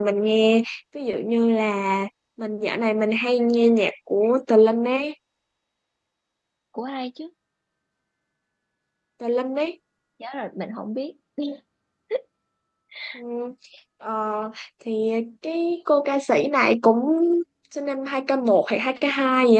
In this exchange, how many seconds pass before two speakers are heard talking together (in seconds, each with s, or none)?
none